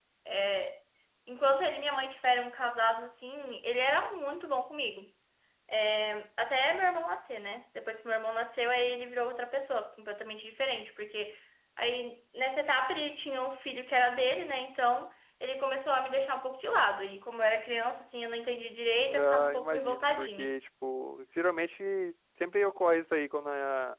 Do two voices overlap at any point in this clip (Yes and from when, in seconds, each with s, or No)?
Yes, from 19.1 s